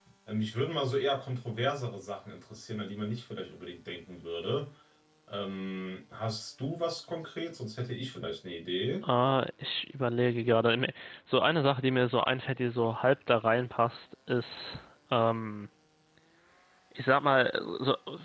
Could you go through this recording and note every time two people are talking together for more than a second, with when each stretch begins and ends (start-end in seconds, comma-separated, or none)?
none